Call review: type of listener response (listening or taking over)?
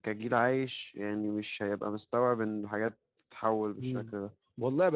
taking over